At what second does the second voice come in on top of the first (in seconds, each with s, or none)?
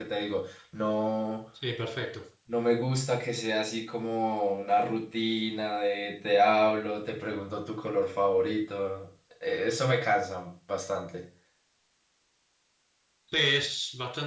none